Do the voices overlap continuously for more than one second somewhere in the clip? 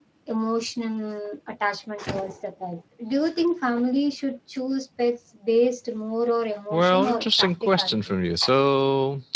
Yes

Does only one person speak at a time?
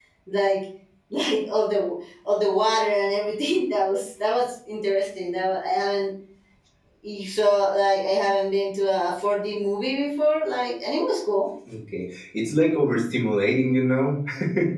Yes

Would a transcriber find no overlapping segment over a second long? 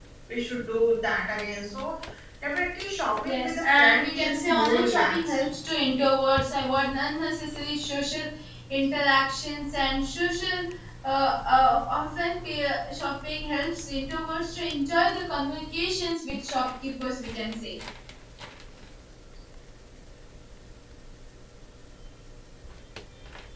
No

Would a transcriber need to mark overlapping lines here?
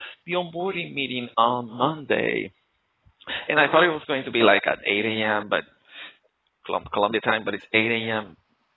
No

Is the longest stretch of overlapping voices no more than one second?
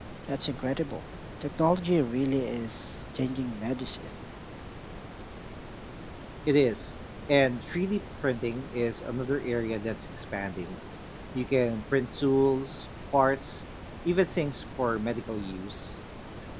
Yes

